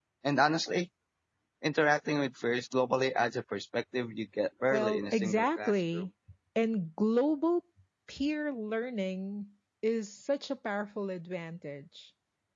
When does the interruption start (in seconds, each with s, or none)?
4.7 s